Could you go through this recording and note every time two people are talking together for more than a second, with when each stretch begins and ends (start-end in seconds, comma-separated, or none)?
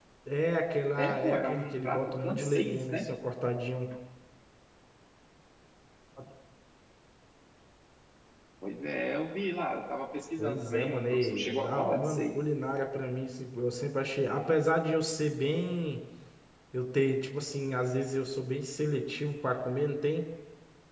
1.0-3.0, 10.4-12.3